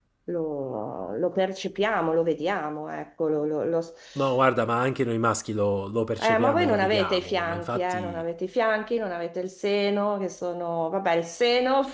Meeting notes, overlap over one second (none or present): present